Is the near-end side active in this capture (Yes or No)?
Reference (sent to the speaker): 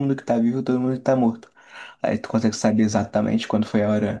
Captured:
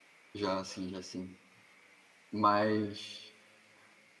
Yes